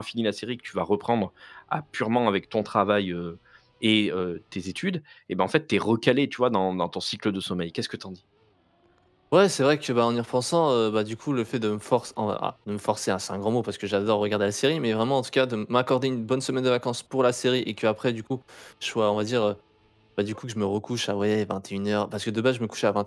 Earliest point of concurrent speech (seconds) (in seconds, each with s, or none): none